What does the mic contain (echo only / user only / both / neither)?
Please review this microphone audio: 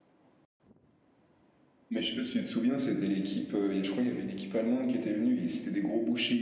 user only